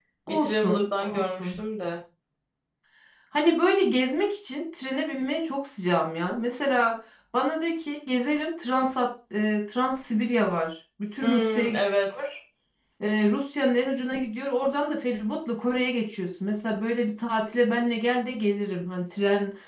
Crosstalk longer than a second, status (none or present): present